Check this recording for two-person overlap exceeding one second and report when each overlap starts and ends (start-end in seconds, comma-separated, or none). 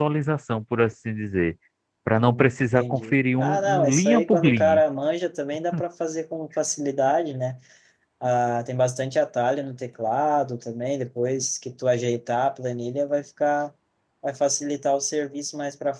2.2-4.8